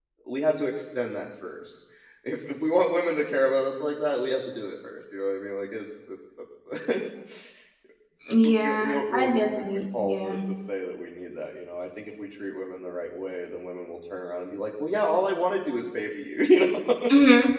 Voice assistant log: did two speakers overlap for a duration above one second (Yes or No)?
Yes